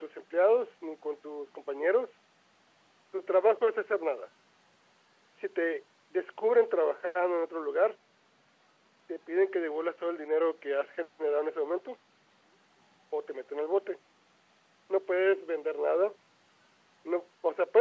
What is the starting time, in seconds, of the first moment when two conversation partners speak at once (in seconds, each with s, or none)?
none